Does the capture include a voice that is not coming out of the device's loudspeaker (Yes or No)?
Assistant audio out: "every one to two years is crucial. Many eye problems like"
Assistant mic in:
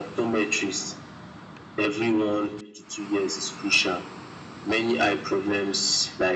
No